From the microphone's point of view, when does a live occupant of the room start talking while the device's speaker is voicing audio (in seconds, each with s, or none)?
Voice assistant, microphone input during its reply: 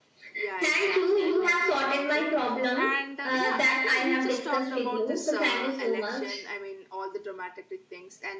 0.3 s